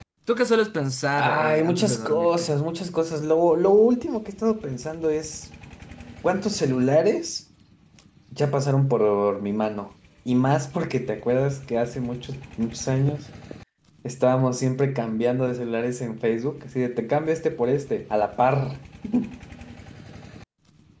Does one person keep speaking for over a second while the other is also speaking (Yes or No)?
Yes